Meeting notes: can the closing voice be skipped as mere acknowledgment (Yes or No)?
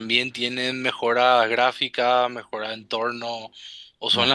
Yes